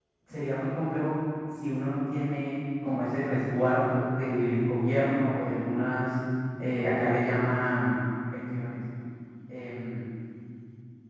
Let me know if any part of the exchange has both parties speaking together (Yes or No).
No